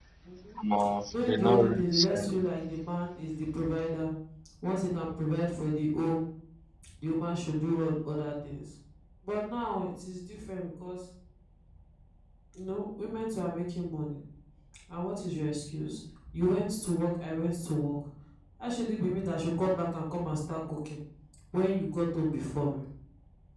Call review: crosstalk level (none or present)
present